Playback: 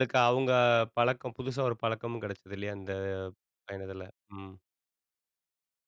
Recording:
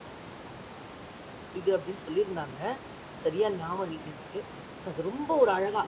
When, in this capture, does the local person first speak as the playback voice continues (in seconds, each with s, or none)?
1.6 s